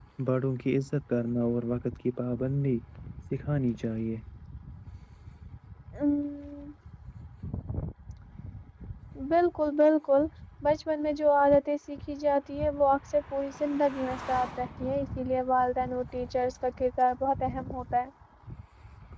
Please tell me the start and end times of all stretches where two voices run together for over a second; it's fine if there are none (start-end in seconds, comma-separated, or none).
none